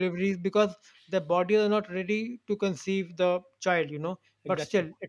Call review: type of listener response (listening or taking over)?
listening